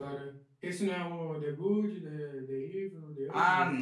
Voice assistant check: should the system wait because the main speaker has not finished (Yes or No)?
No